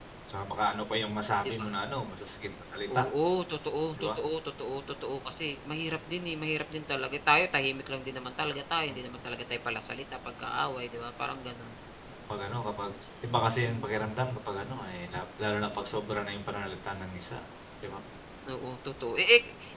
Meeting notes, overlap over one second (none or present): none